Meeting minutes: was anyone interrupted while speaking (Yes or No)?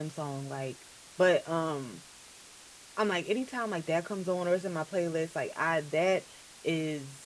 No